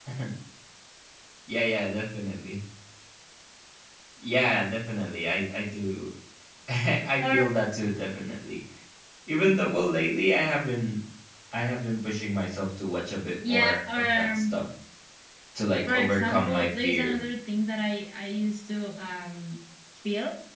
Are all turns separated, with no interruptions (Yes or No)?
No